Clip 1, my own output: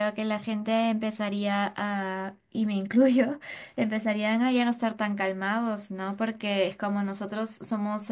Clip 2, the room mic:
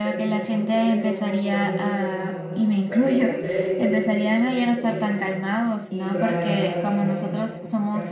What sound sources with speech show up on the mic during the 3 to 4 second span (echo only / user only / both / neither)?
both